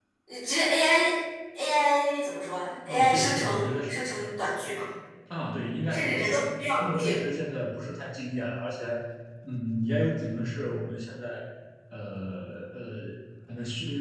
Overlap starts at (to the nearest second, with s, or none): 3 s